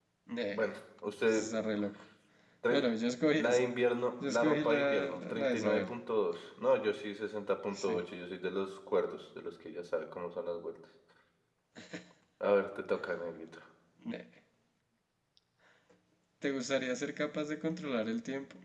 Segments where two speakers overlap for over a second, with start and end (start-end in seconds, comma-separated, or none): 4.3-5.9